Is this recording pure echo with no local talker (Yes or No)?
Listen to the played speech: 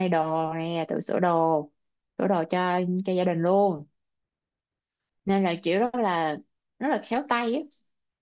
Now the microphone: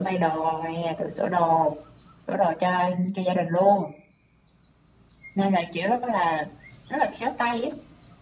Yes